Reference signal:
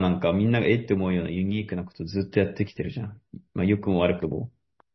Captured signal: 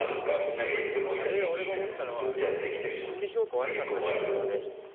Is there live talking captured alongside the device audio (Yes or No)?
Yes